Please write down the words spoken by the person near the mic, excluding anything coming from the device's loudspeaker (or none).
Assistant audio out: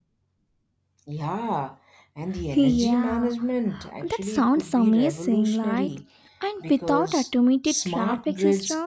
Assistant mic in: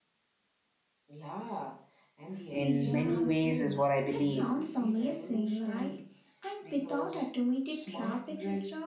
in many ways, is what I believe.